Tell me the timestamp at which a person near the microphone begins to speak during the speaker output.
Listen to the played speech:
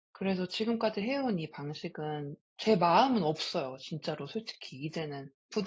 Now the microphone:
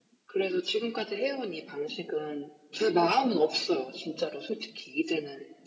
none

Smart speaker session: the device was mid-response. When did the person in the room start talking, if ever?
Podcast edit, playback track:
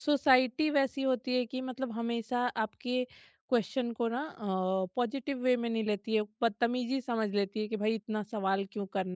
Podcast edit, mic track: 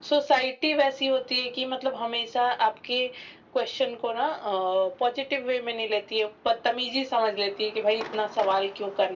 none

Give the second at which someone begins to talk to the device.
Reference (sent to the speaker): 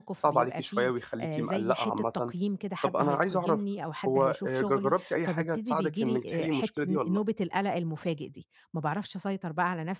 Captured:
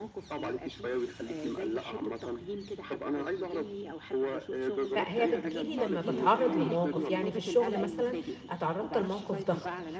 5.0 s

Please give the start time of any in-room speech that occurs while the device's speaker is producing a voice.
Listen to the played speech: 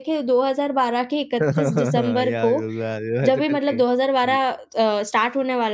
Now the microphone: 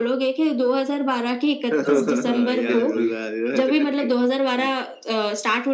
1.9 s

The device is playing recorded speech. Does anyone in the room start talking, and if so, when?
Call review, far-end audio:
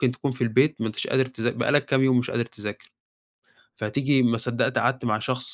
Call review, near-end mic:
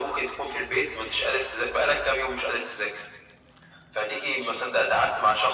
none

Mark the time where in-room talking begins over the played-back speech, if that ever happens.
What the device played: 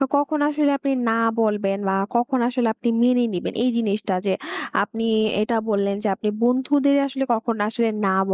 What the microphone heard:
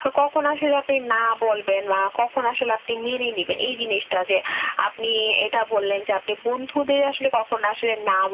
none

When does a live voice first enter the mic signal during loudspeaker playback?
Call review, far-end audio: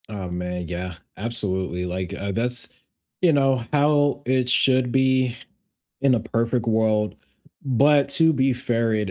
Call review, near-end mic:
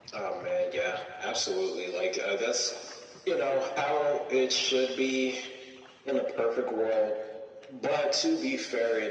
none

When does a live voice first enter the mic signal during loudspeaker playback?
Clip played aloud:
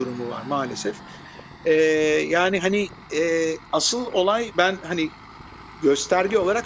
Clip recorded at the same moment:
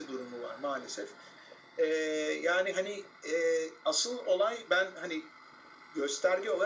none

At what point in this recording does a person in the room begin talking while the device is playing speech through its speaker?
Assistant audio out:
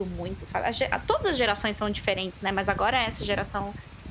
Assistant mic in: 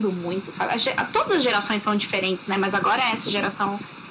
none

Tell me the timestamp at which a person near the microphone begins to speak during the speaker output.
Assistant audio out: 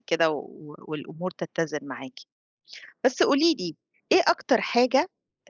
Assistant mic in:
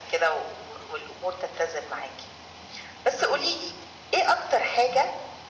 none

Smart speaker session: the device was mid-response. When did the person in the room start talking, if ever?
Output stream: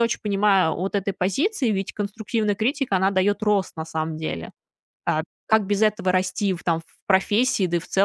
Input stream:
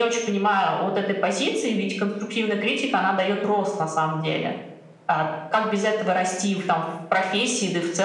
none

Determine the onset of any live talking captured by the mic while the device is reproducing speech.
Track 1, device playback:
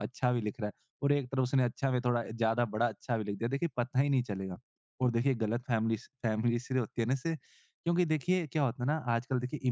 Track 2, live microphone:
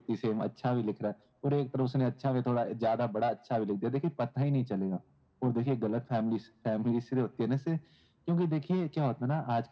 none

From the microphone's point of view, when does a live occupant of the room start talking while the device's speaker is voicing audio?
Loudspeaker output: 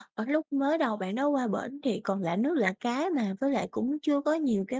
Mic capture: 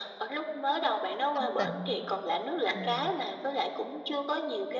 1.3 s

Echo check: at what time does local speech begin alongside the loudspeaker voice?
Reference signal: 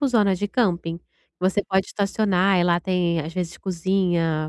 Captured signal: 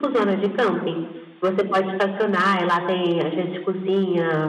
none

